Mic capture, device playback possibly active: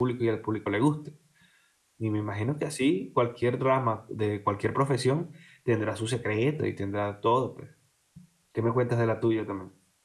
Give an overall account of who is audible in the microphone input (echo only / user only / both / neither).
user only